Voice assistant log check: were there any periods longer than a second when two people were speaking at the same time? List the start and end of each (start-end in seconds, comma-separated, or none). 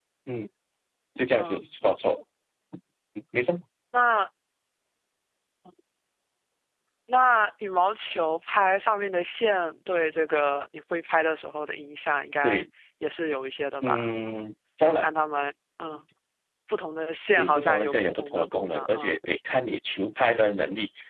17.4-19.1